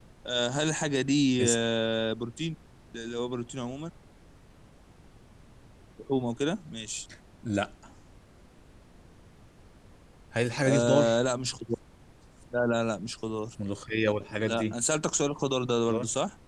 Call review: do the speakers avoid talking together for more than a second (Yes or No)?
Yes